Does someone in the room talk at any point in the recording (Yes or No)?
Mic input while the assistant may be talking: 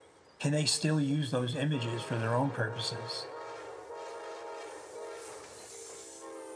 Yes